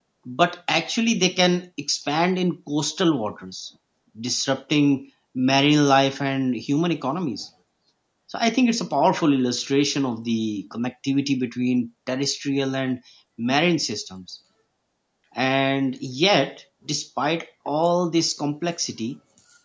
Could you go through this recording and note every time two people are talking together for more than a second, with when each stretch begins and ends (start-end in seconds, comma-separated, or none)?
none